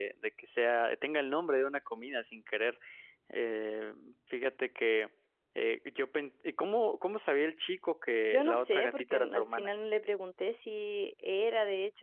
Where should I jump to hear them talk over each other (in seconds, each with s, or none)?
8.3 s